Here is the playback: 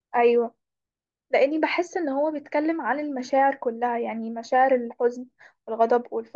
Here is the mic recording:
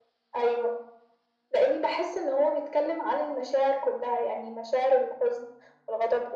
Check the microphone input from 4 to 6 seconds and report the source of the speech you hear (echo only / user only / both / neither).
echo only